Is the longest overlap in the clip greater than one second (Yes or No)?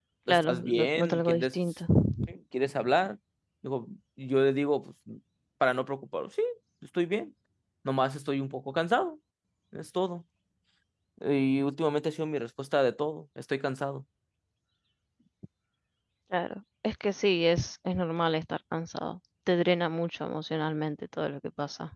Yes